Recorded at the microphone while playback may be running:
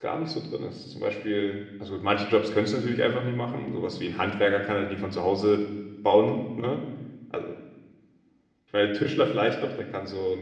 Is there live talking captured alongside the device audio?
Yes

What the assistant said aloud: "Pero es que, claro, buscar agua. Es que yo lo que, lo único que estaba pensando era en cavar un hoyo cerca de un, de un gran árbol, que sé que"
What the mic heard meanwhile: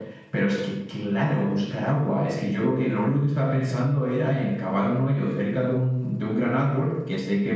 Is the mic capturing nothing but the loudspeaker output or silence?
Yes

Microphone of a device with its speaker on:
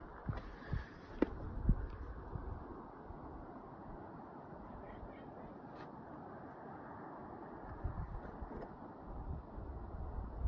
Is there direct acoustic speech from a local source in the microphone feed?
No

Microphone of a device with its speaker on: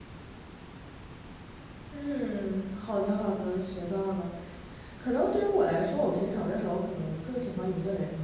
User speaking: Yes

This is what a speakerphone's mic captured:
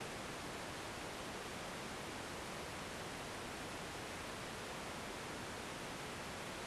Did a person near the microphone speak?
No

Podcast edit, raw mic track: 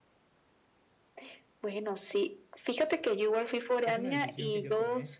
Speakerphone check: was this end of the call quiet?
No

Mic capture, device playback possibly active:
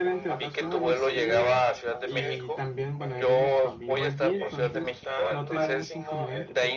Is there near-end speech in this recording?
Yes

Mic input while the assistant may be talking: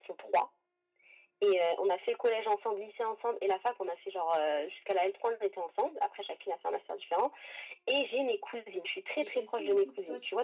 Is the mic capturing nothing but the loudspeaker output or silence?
No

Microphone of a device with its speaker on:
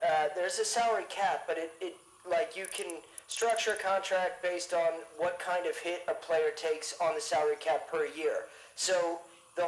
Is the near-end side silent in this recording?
Yes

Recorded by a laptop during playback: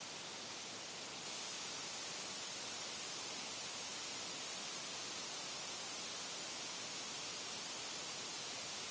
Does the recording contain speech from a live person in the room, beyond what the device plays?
No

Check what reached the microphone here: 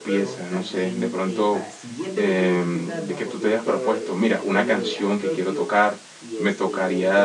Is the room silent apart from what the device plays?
No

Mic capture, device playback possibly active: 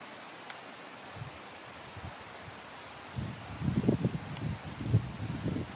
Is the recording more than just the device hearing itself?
No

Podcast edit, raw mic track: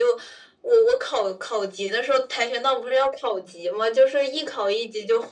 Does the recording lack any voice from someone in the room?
Yes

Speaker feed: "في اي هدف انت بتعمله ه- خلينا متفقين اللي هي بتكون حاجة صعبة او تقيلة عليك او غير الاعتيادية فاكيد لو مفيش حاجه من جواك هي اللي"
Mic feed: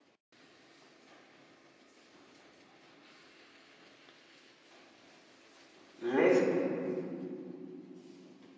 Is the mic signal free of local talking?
No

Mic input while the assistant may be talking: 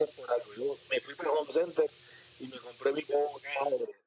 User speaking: No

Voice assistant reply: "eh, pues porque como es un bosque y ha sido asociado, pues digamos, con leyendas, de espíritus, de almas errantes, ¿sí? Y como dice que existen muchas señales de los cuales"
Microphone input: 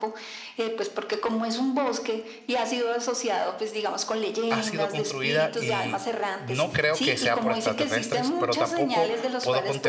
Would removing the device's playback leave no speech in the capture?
No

